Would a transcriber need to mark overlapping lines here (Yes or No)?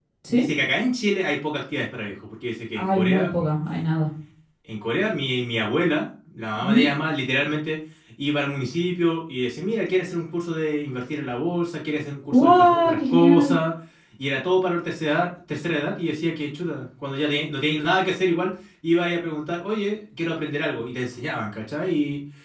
Yes